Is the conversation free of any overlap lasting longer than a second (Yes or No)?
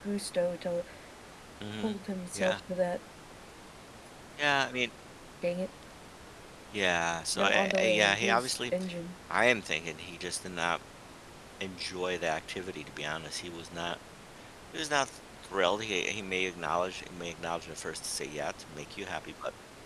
No